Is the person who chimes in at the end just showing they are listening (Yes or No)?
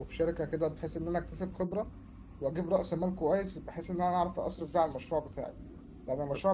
Yes